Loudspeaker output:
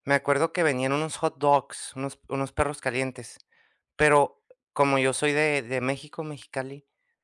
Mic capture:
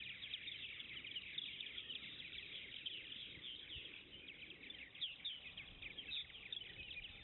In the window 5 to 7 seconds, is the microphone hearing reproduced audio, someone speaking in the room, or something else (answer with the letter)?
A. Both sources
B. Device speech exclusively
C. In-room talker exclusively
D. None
D